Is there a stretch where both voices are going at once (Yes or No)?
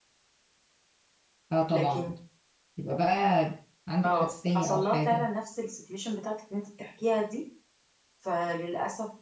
Yes